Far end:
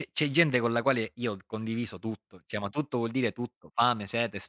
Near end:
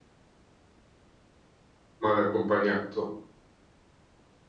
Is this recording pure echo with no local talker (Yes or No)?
No